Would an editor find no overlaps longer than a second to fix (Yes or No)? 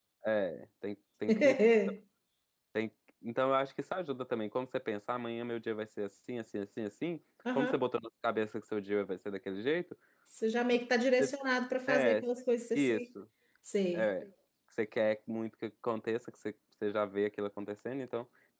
Yes